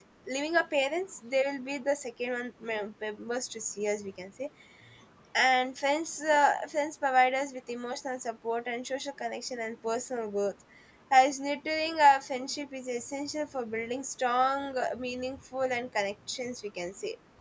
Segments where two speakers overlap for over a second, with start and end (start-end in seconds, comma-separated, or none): none